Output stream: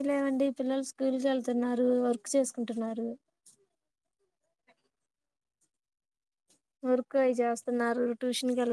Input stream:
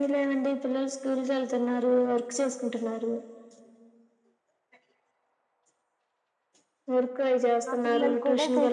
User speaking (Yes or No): Yes